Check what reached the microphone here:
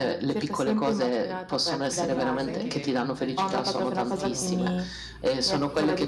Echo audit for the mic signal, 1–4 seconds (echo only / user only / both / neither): both